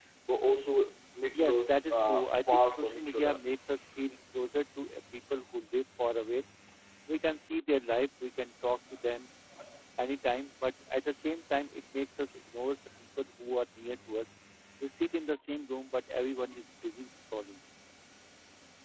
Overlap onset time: 1.3 s

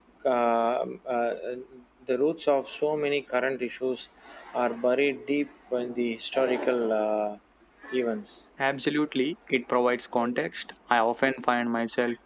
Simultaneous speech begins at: none

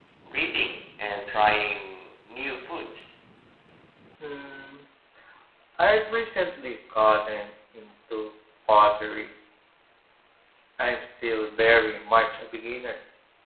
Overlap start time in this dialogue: none

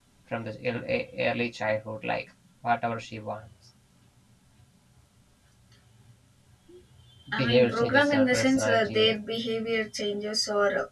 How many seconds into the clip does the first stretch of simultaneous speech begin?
7.4 s

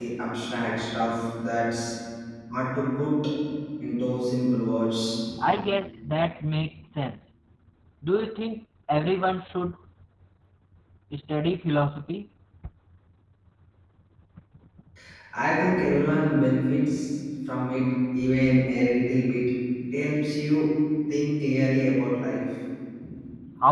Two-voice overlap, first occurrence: none

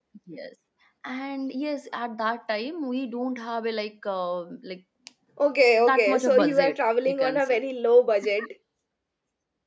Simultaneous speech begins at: 5.9 s

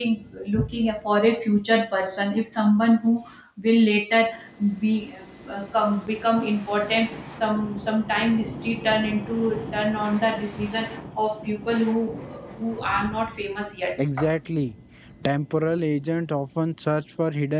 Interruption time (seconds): none

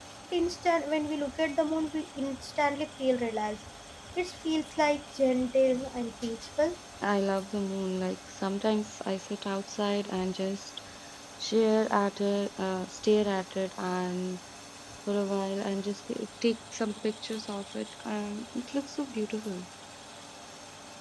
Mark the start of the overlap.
none

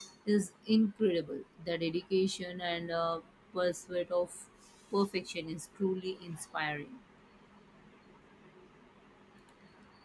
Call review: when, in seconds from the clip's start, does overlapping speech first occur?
none

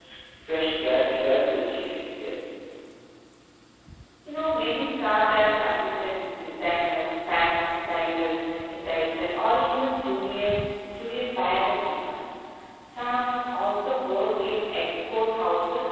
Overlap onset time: none

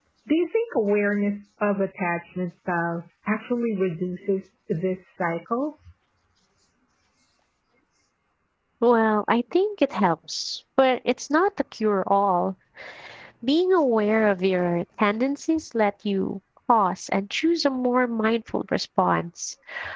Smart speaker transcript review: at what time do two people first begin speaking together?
none

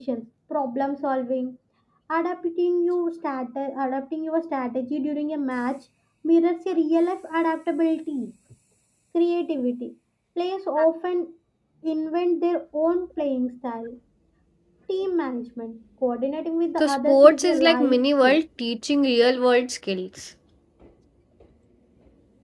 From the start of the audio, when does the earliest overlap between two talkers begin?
16.8 s

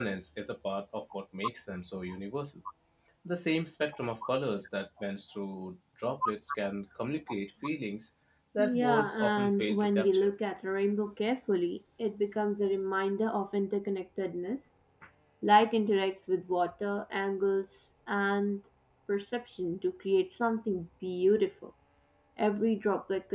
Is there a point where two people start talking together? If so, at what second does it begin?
8.6 s

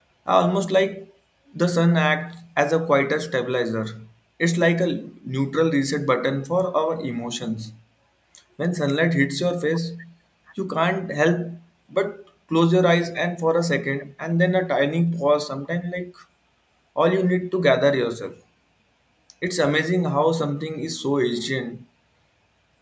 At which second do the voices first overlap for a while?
none

